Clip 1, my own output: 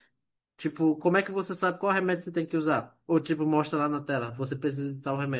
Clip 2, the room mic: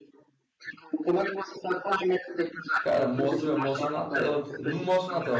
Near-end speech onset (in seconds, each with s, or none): 2.8 s